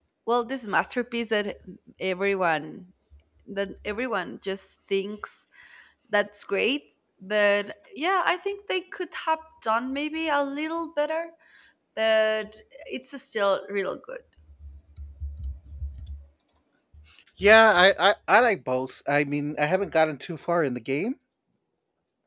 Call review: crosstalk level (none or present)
none